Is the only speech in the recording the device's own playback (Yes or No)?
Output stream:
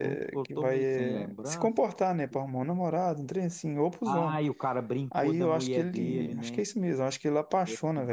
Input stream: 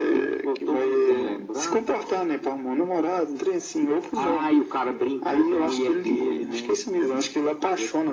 Yes